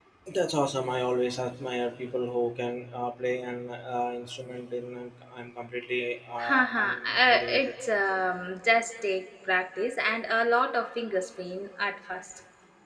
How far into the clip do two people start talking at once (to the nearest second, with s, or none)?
6 s